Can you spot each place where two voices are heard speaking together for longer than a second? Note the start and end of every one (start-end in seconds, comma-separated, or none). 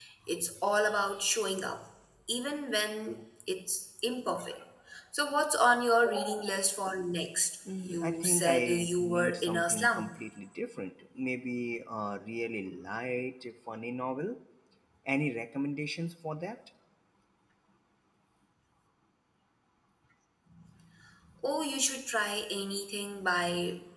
7.8-10.1